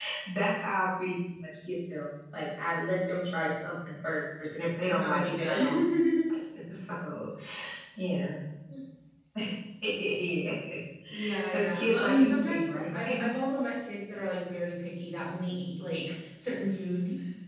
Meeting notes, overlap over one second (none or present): present